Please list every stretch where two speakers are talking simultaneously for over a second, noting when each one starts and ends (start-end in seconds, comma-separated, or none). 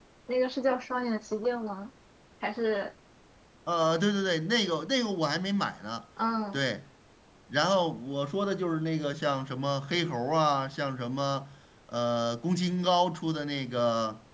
none